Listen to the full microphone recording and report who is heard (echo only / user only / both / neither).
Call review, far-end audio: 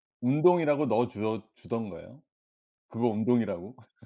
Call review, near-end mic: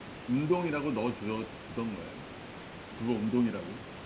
echo only